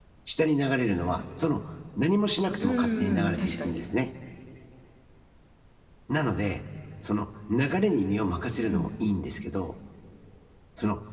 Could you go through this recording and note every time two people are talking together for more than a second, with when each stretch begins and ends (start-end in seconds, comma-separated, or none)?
2.6-3.8